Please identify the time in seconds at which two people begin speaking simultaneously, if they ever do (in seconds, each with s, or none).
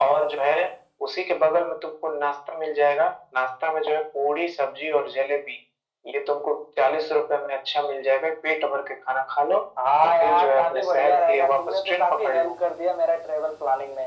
10.0 s